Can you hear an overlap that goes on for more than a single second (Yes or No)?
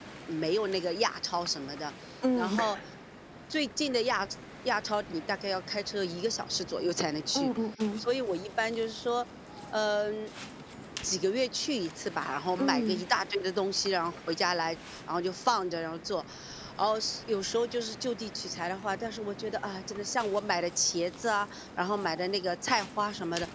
No